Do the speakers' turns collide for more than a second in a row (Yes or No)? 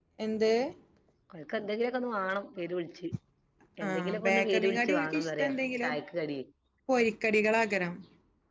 Yes